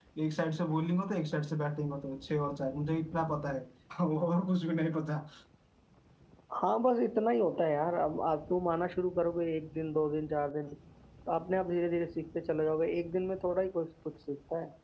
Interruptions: none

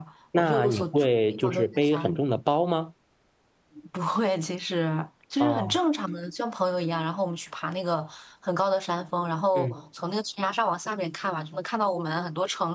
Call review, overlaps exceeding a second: present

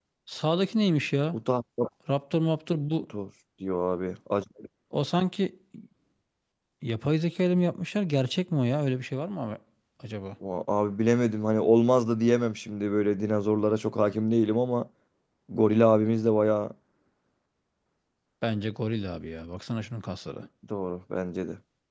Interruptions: none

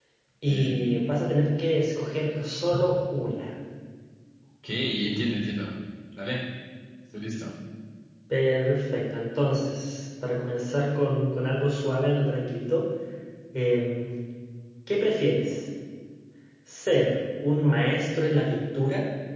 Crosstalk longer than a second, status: none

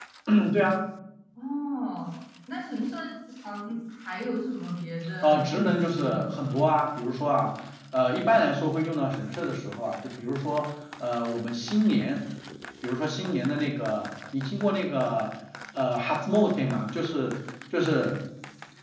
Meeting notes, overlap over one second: present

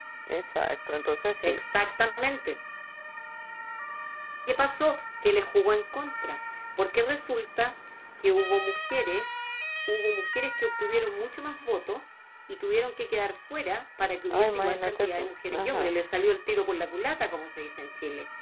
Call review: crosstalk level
present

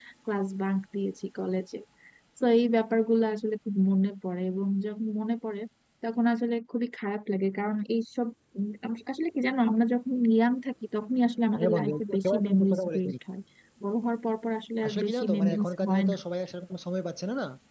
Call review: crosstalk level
present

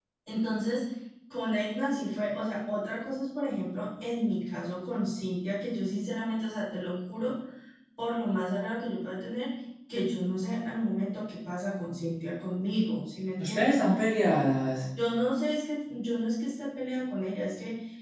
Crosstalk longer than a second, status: none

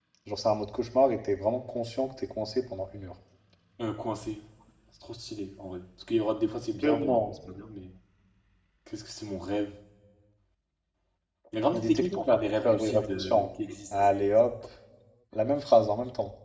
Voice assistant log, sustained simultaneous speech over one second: present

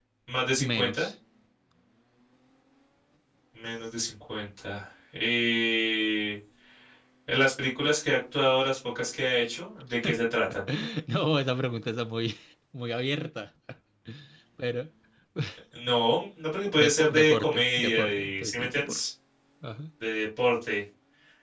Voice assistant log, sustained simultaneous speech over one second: present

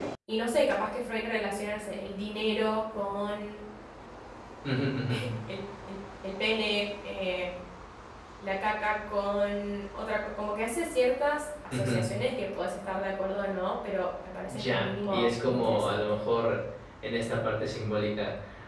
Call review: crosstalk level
present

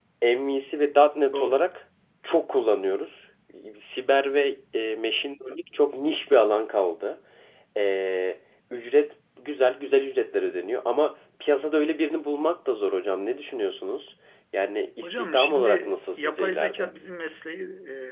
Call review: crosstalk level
present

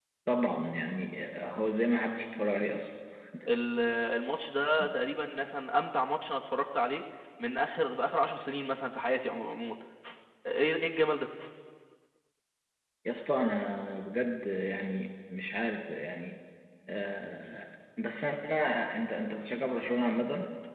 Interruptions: none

